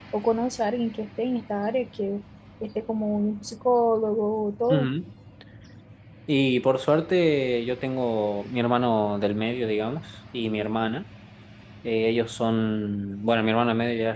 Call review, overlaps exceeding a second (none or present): none